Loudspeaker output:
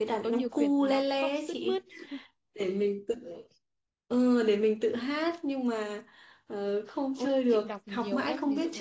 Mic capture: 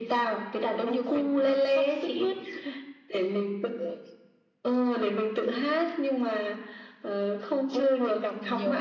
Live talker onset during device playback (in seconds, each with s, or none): none